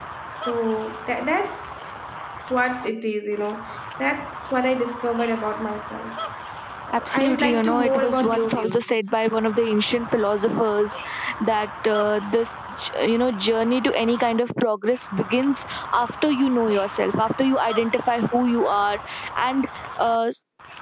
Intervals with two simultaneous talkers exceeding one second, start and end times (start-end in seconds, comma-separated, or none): 7.1-9.1